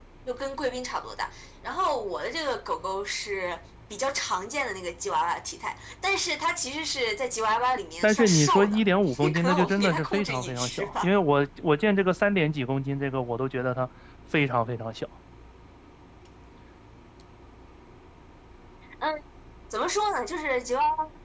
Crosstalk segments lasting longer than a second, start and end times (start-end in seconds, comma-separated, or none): 8.0-11.1